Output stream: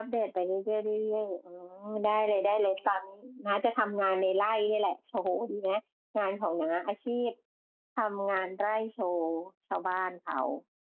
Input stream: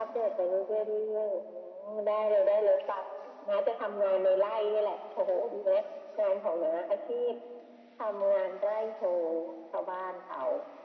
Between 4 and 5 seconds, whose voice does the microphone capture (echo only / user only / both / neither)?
echo only